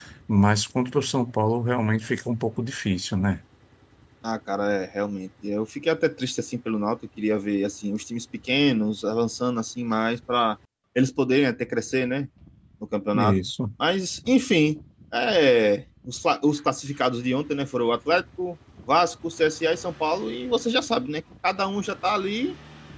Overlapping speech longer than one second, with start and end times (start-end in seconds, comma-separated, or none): none